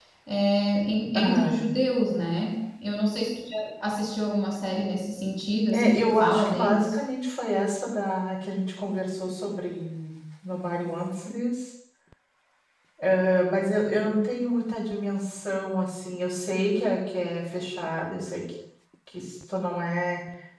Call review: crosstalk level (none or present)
present